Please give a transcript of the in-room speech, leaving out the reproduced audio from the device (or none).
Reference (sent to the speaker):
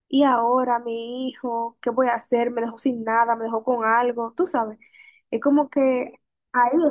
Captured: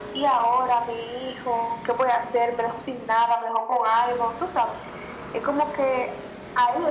none